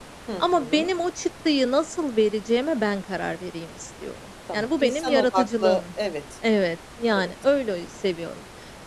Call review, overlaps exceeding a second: present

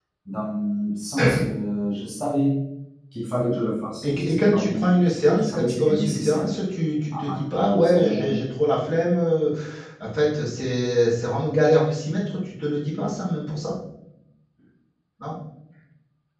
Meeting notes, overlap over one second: present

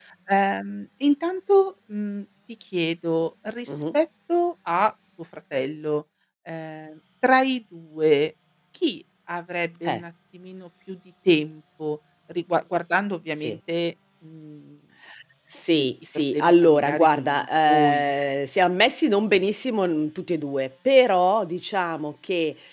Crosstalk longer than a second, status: present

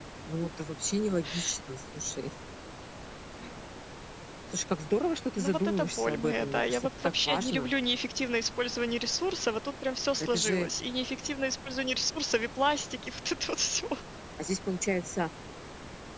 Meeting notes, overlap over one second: present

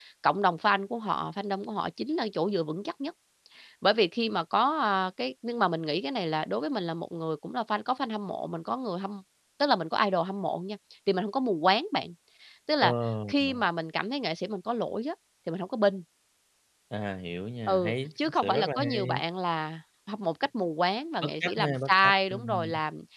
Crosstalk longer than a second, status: present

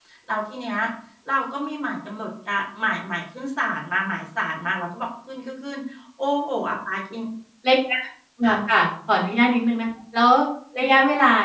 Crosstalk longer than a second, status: none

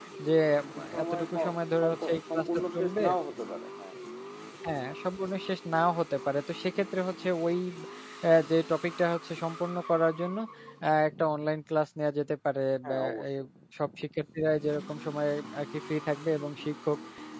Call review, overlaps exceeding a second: present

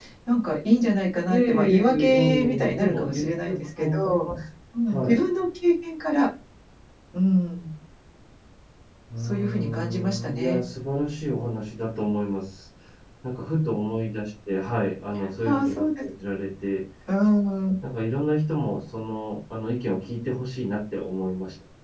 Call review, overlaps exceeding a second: present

